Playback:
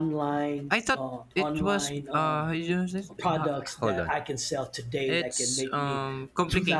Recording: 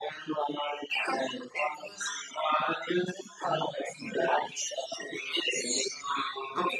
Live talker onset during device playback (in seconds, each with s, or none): none